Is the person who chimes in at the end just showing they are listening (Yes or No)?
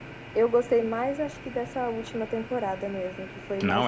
No